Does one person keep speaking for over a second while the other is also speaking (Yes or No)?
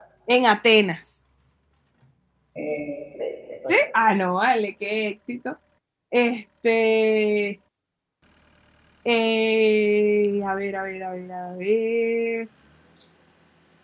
No